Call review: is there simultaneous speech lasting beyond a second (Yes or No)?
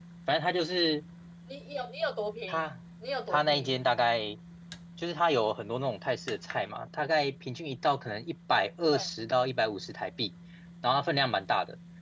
No